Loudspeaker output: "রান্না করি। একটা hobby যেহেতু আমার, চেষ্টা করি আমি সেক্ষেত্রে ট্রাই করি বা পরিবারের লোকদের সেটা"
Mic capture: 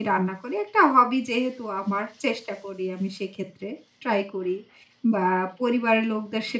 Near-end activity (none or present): none